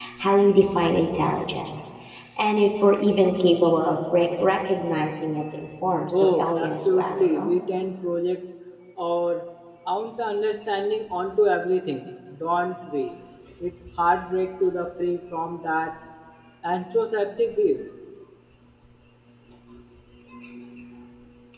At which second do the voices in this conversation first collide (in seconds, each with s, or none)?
6.1 s